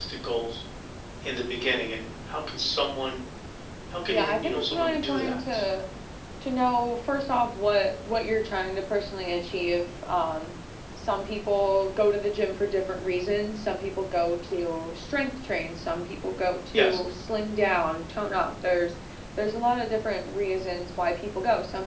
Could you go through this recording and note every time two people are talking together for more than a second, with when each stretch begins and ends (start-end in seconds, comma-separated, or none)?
4.1-5.6